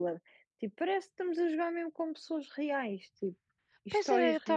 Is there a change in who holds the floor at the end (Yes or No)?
Yes